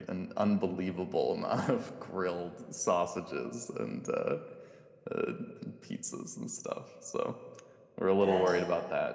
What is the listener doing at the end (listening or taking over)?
listening